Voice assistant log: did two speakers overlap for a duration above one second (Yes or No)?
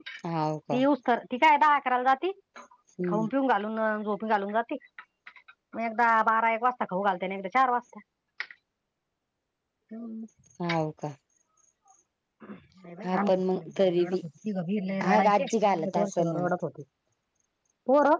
Yes